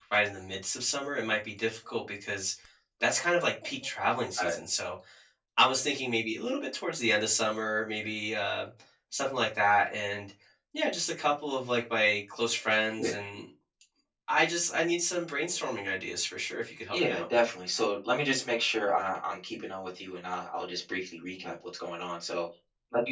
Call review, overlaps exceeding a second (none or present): none